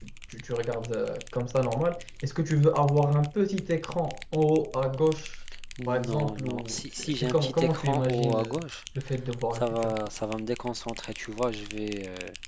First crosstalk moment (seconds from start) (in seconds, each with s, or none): 5.9 s